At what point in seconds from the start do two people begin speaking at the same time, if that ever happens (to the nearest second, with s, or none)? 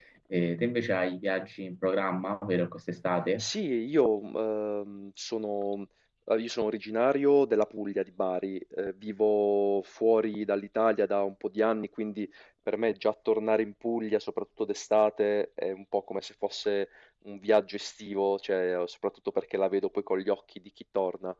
none